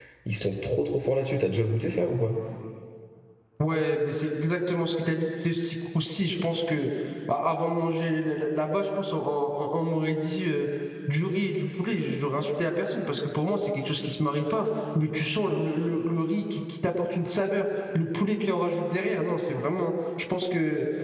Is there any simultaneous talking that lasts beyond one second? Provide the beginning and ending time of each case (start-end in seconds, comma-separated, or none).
none